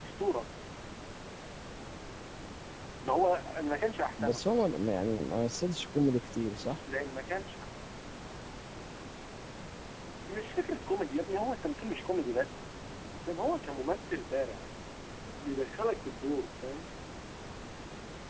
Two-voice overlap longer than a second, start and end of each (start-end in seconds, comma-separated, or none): none